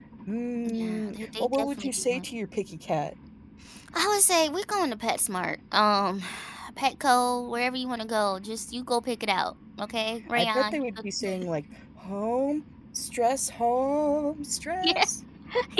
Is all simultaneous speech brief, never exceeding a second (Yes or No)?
No